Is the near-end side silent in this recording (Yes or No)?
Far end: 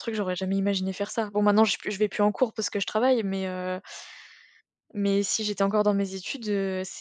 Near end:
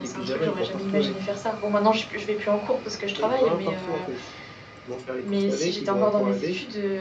No